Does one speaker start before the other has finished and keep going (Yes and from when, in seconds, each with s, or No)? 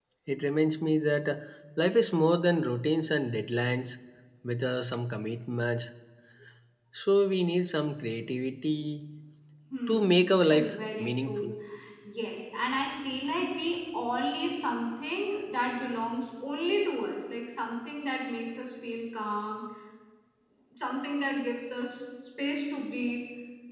Yes, from 9.9 s